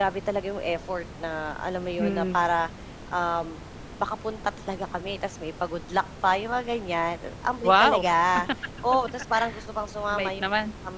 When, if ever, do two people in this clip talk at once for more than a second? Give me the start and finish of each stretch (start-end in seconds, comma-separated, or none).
none